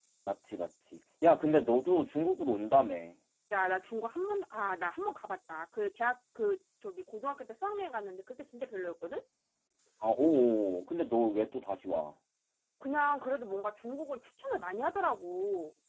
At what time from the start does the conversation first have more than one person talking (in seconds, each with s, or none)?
none